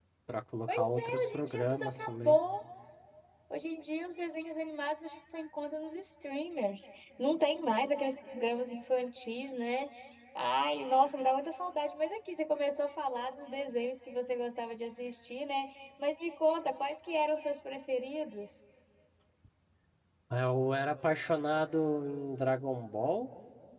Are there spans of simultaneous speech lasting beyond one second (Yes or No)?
Yes